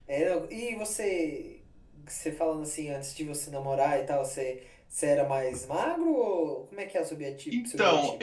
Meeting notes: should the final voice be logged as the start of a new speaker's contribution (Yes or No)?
Yes